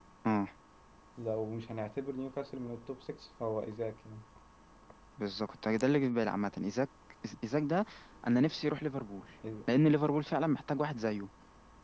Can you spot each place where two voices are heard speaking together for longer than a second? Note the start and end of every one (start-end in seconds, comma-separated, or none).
none